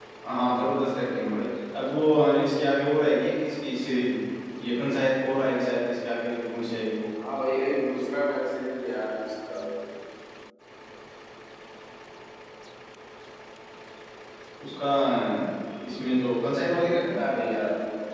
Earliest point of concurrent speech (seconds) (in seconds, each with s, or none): none